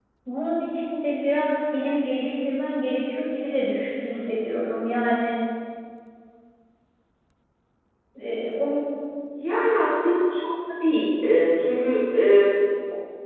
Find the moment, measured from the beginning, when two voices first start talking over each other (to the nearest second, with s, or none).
none